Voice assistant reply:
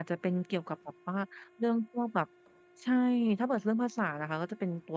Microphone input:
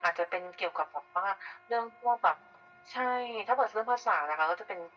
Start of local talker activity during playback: none

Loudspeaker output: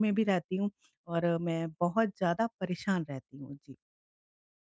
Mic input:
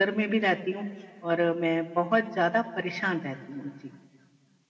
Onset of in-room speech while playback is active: none

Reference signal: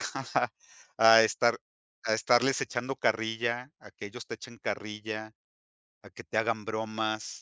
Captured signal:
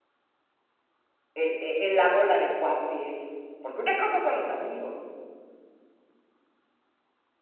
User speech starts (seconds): 1.4 s

